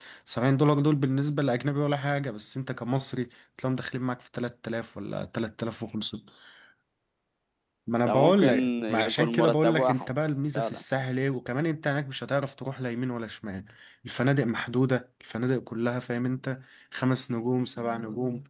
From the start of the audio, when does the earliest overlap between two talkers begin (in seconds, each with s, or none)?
8.1 s